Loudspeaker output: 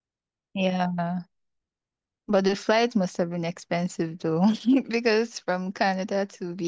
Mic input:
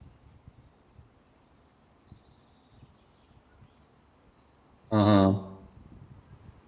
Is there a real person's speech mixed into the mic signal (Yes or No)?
Yes